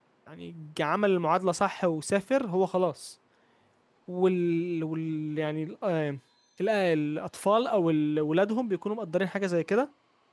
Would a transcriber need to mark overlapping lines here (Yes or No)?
No